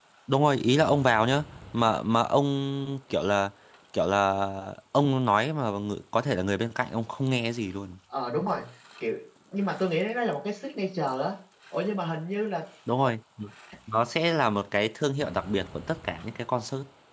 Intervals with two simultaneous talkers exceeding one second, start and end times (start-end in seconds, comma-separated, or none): none